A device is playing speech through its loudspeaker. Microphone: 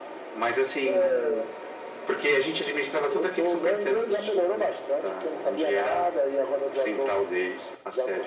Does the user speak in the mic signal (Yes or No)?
No